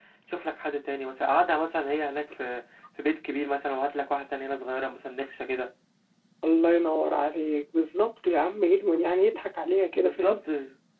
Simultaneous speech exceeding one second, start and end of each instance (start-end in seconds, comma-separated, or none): none